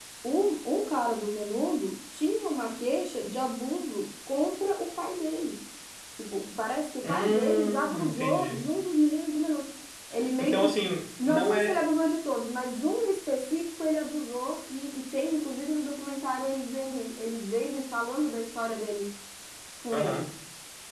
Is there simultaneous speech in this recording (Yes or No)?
Yes